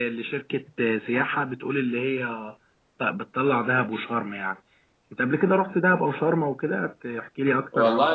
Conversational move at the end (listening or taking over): taking over